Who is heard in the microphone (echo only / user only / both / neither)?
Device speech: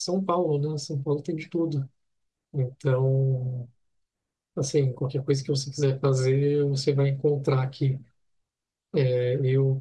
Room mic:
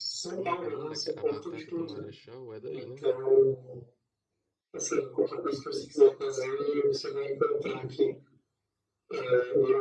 both